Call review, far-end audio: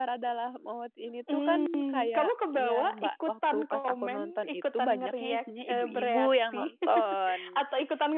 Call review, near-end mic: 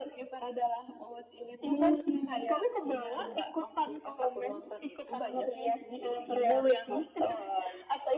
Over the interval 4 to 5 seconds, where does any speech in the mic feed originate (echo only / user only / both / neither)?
echo only